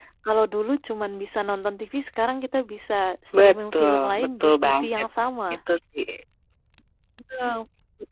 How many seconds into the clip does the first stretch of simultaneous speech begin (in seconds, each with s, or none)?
3.3 s